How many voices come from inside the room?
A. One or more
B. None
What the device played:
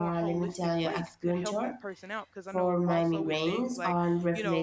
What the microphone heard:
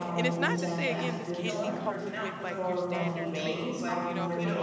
A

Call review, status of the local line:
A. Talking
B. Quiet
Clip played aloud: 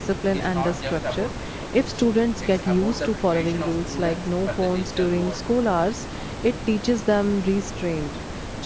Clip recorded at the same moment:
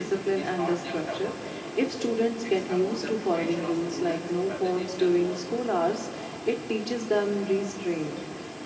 B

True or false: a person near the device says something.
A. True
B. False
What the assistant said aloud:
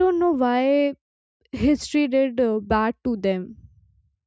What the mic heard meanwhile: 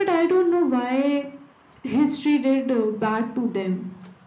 B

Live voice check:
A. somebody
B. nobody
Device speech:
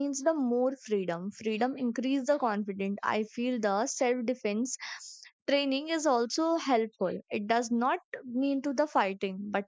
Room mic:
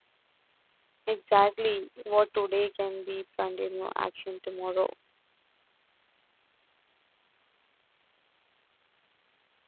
A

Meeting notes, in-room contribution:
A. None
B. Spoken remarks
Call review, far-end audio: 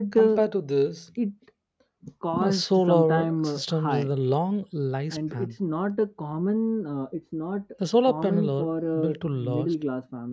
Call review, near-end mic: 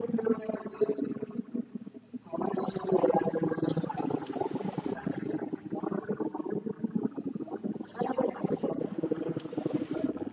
A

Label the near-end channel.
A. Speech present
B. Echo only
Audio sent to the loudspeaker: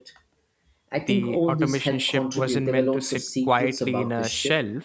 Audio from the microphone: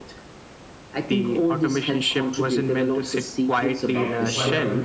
A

